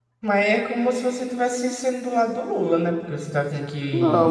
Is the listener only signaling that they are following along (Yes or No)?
No